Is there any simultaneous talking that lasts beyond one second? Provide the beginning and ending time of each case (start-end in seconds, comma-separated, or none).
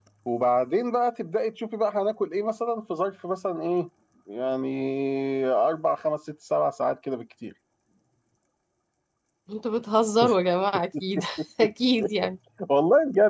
none